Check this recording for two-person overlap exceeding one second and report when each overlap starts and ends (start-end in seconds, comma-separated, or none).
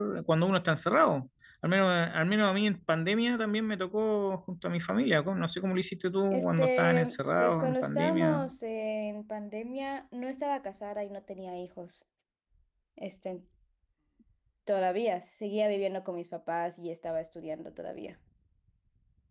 6.3-8.4